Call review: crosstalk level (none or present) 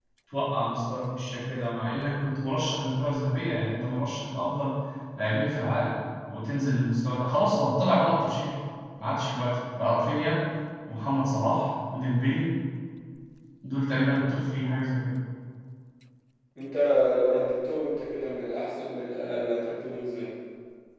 none